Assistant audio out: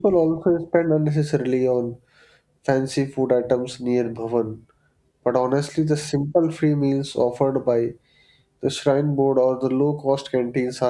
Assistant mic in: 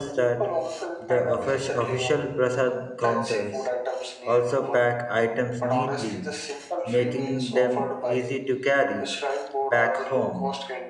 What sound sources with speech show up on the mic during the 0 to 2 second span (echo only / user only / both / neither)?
both